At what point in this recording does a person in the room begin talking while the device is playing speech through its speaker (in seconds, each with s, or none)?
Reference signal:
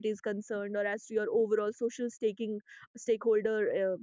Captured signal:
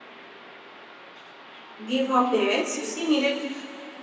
1.8 s